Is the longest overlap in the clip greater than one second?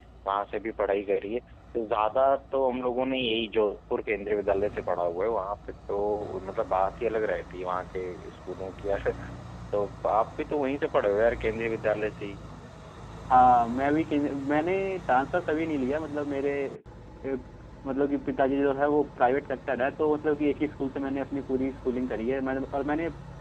No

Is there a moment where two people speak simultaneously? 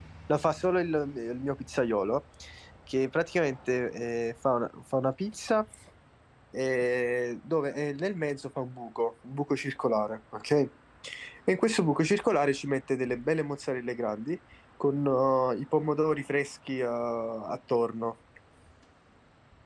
No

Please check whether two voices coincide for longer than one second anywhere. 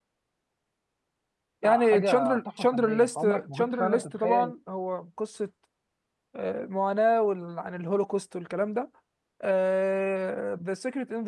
Yes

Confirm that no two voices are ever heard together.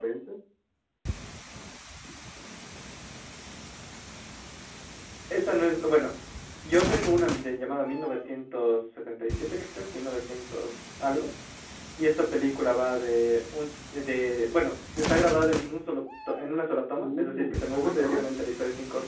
No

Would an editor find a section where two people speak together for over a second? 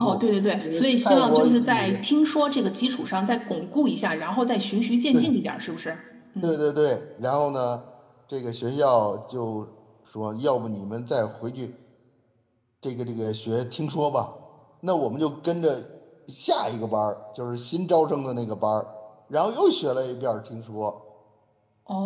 Yes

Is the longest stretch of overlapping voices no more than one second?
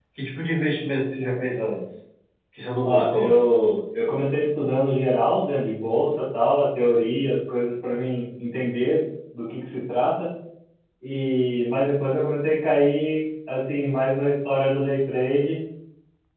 Yes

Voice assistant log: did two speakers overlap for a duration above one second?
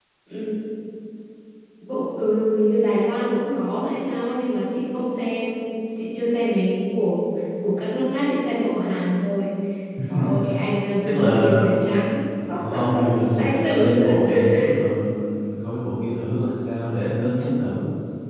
Yes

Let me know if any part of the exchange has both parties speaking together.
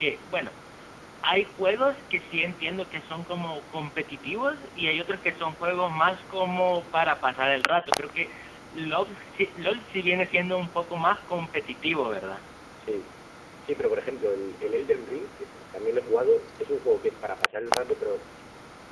No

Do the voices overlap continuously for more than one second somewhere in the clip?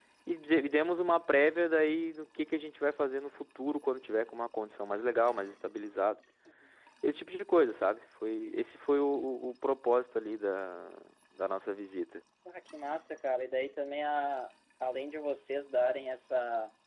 No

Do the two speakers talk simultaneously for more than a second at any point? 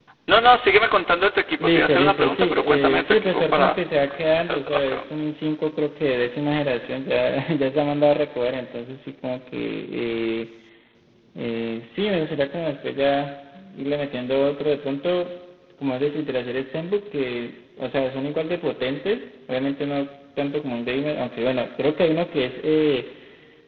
Yes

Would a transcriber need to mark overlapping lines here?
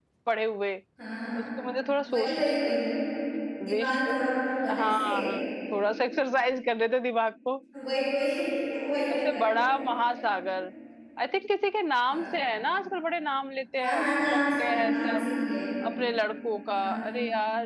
Yes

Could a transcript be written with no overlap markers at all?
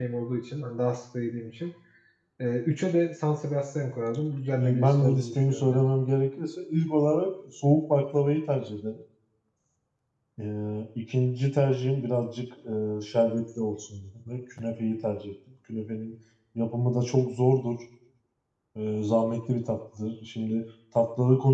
No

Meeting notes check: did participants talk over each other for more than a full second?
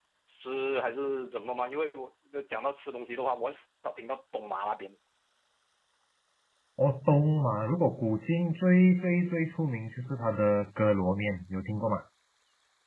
No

